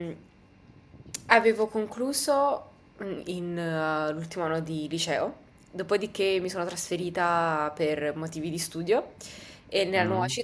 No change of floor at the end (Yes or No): Yes